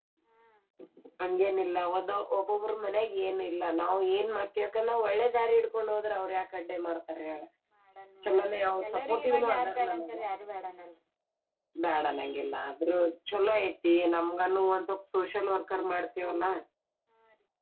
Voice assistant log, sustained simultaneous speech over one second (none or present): present